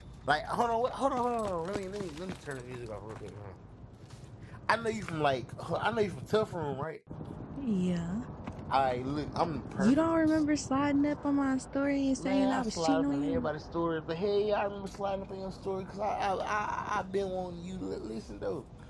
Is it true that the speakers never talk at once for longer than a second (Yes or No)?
No